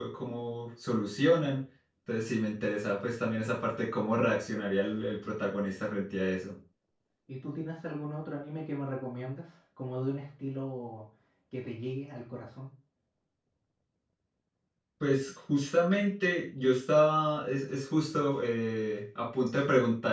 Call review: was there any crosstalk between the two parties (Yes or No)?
No